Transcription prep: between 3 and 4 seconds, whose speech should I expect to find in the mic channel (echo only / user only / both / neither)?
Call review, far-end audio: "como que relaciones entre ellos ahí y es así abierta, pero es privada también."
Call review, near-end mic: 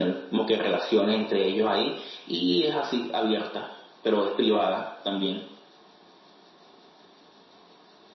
echo only